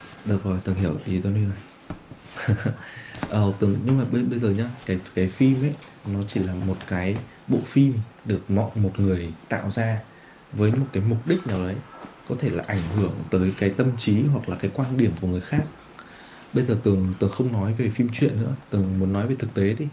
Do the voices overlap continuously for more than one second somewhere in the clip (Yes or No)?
No